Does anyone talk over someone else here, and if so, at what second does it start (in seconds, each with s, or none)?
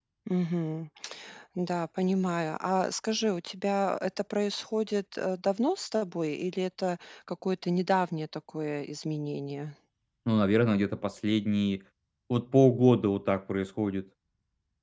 none